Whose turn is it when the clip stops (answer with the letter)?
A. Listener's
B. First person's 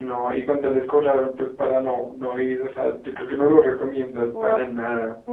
A